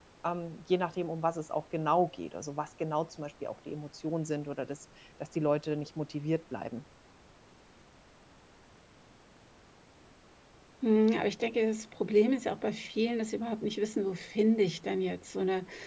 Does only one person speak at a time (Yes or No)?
Yes